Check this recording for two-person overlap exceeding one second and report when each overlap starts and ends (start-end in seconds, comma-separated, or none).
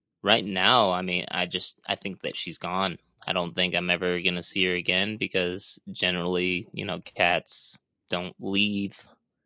none